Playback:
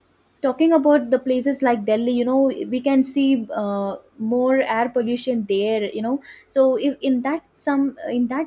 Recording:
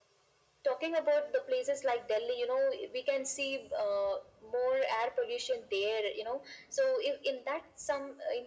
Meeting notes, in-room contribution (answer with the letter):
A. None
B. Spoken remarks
A